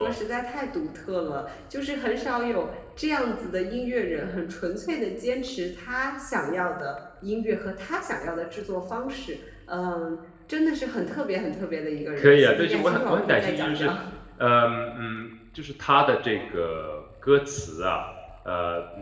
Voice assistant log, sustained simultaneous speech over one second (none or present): present